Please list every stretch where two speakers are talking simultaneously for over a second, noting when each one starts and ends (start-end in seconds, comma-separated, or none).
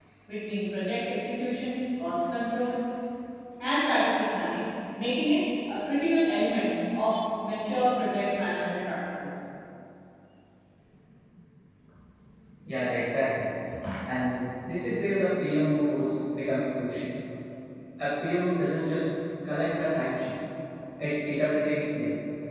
none